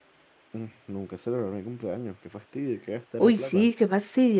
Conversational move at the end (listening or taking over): taking over